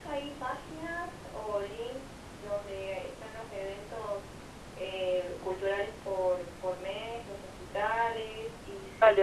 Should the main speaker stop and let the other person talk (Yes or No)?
Yes